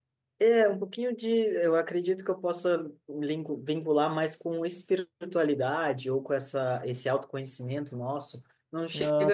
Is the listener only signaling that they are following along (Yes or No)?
Yes